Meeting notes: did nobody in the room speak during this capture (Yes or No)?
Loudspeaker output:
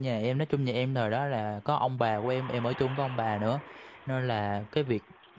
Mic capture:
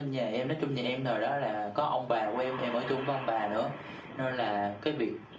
Yes